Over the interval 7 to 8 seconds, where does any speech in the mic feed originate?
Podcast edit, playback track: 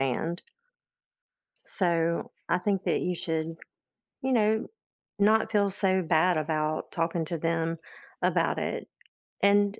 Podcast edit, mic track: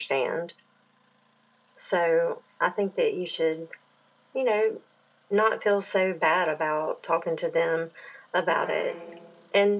echo only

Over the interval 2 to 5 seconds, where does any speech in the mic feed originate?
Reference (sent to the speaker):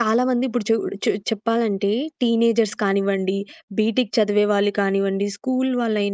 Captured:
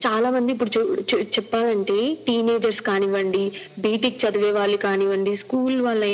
echo only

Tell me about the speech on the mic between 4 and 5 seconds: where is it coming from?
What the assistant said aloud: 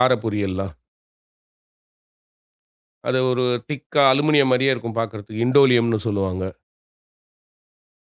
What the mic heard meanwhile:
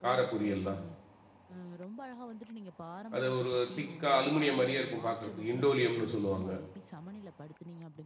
both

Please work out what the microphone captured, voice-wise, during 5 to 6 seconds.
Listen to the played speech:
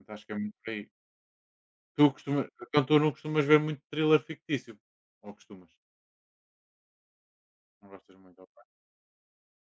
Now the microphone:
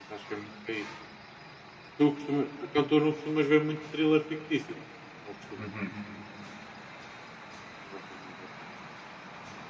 both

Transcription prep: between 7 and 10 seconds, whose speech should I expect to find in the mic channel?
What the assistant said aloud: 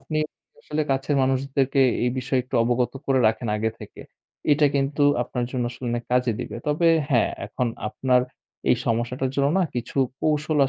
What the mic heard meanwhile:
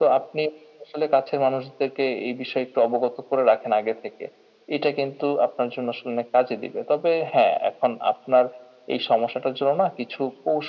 echo only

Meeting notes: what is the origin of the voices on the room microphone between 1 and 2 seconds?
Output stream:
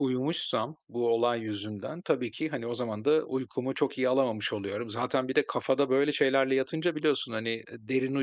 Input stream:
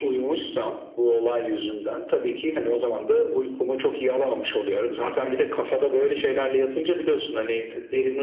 echo only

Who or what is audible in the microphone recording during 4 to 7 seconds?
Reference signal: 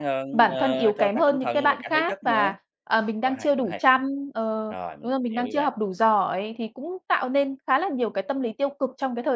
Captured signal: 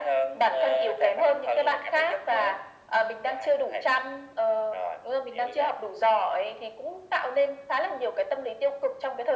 echo only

